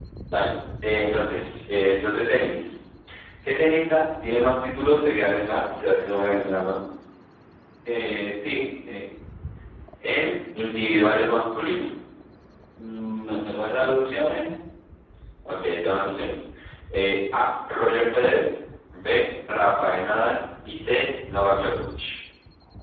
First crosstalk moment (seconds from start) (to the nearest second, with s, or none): none